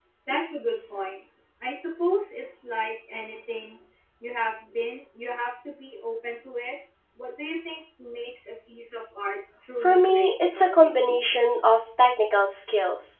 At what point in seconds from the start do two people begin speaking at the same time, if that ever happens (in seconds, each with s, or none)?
9.8 s